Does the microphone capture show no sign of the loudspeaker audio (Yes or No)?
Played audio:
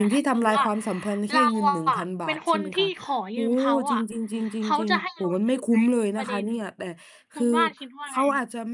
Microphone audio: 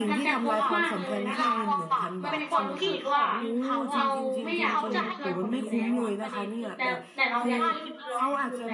No